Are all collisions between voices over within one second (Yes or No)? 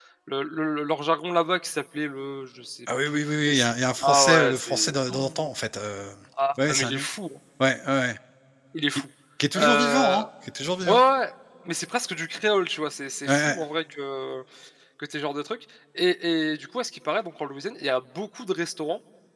No